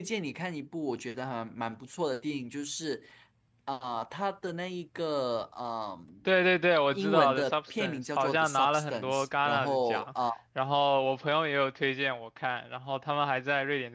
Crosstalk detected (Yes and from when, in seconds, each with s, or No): Yes, from 6.9 s